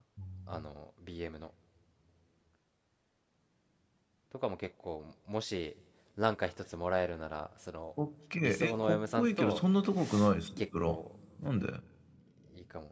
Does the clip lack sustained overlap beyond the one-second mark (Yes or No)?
No